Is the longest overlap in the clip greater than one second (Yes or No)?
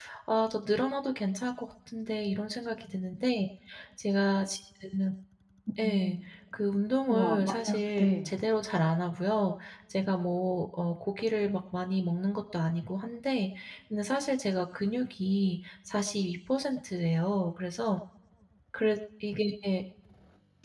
Yes